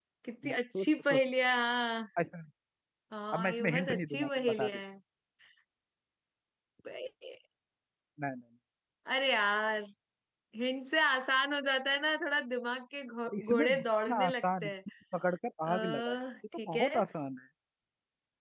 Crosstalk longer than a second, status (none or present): present